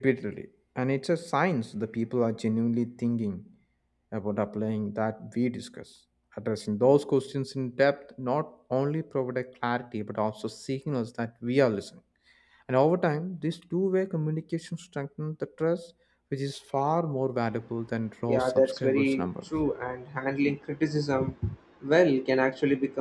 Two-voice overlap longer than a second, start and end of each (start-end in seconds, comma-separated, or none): 18.3-19.5